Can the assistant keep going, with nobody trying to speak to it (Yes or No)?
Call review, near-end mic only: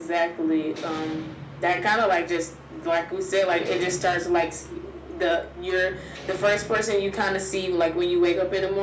Yes